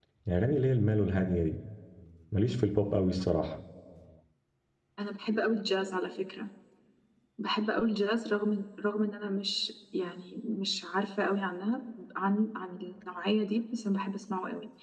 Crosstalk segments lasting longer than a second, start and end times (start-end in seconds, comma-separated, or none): none